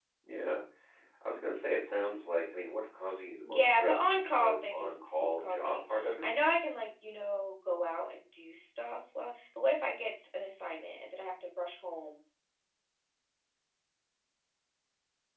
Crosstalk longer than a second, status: present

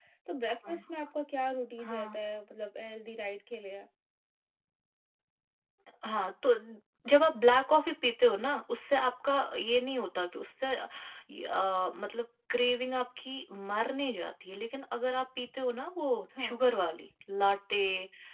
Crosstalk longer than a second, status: none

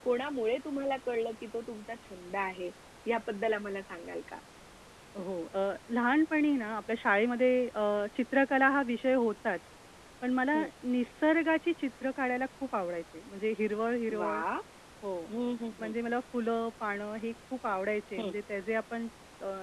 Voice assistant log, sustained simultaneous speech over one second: none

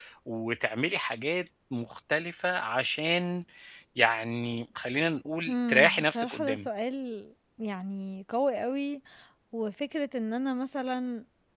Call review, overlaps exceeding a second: present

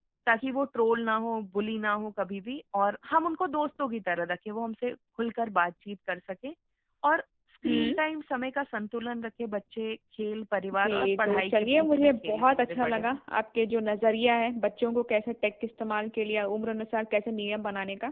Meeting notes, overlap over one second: present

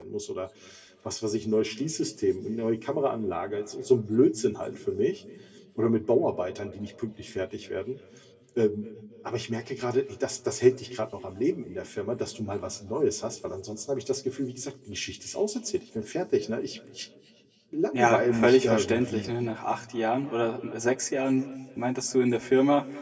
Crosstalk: present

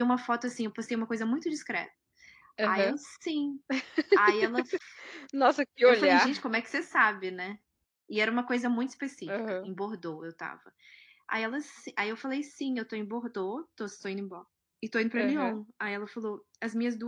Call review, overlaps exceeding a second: none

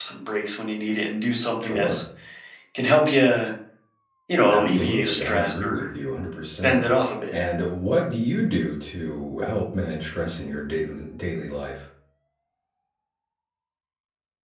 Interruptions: present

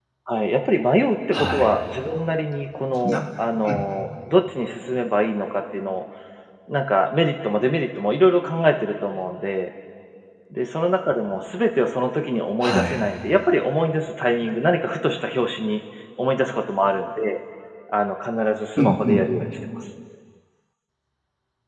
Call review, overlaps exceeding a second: none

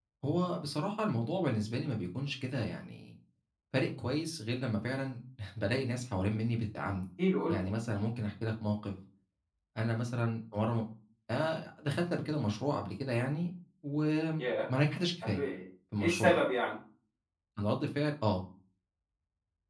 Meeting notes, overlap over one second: none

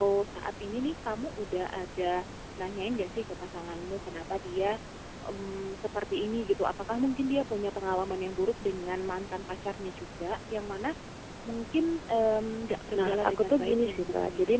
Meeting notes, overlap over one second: present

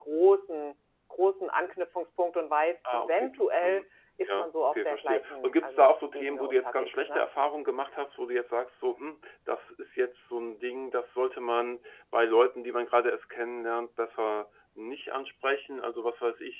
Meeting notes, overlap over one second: present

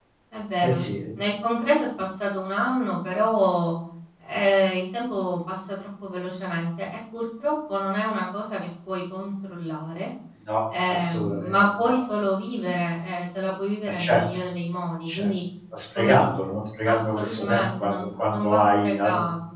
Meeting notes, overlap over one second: present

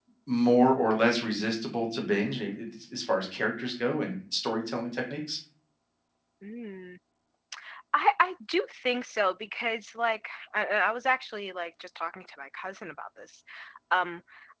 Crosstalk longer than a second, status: none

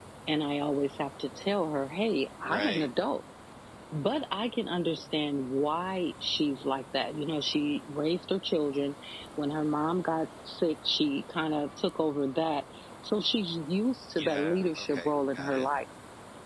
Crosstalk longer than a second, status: present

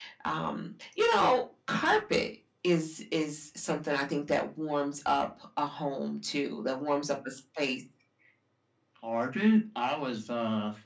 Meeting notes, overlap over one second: none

